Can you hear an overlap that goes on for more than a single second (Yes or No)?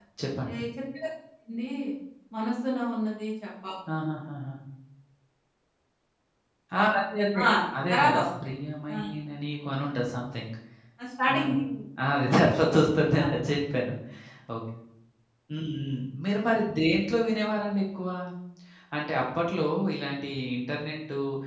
No